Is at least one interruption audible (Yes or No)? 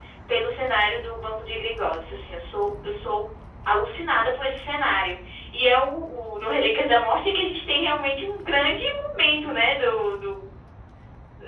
No